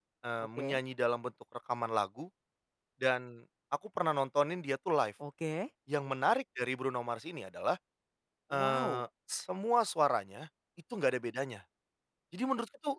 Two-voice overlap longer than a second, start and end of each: none

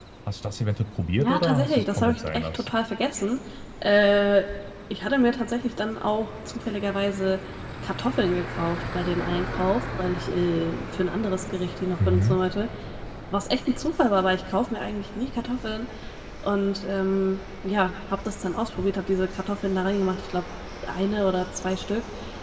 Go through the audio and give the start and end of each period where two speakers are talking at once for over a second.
1.2-2.8

